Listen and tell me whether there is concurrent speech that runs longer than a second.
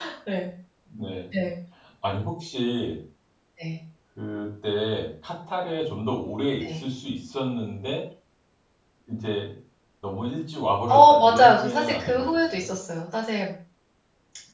Yes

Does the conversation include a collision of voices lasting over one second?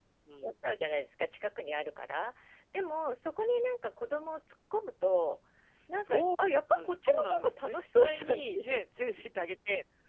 Yes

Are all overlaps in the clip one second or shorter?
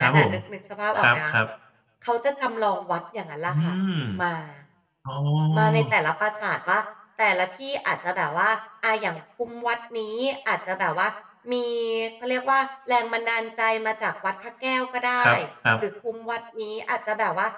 Yes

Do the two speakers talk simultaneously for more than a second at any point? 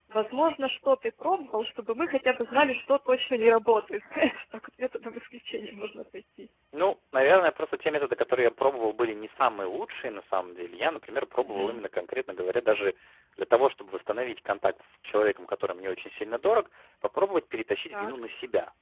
No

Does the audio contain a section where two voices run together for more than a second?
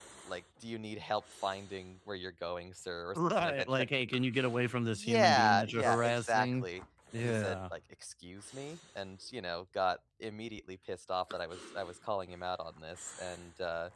Yes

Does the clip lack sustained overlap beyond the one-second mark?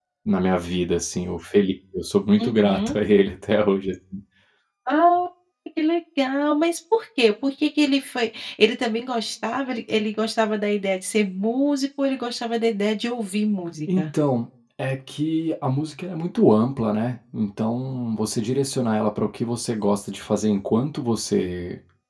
Yes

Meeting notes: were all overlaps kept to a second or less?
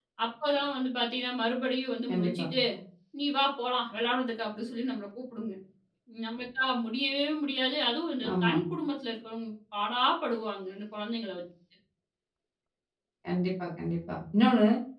Yes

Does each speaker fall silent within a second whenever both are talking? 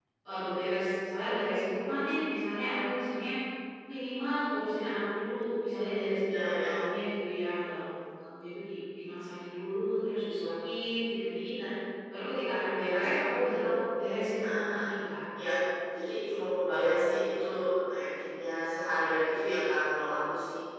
Yes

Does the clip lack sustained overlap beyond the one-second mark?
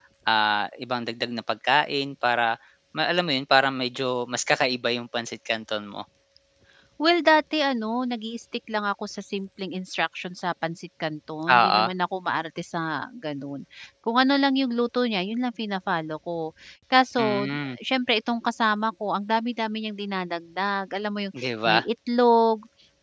Yes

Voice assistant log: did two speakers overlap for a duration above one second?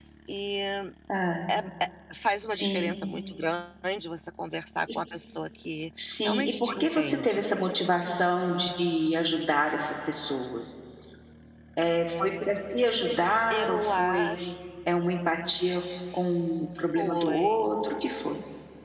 Yes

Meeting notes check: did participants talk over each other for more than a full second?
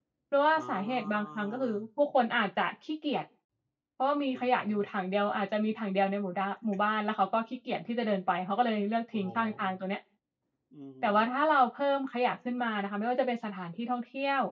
Yes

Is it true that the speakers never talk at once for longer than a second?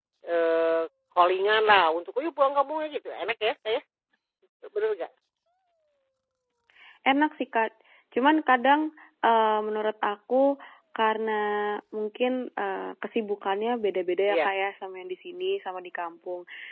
Yes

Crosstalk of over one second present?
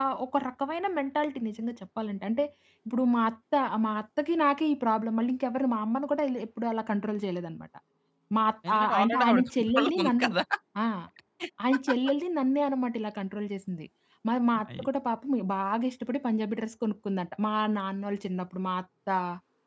Yes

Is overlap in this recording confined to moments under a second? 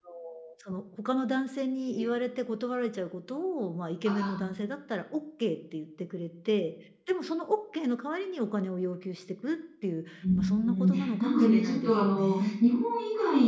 No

